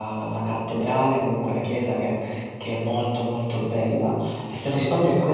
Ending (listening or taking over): listening